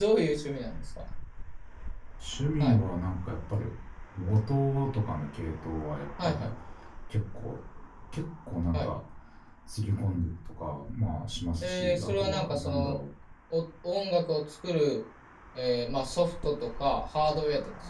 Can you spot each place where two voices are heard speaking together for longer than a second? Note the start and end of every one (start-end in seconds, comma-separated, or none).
11.6-13.0